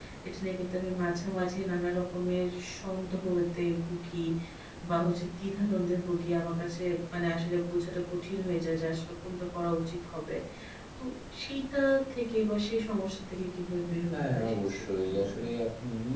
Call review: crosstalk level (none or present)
present